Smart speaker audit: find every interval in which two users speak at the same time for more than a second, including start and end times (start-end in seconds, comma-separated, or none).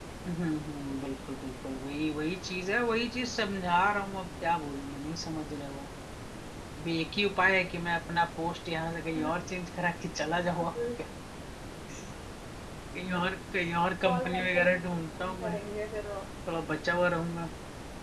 14.0-15.6